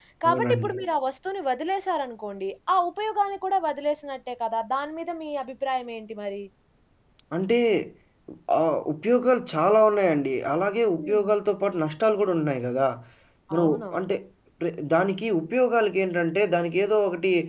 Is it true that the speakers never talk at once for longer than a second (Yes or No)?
Yes